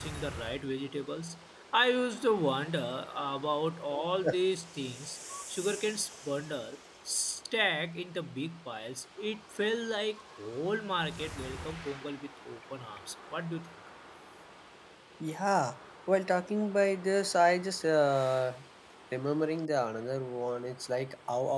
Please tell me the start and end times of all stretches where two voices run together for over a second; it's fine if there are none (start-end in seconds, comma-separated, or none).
none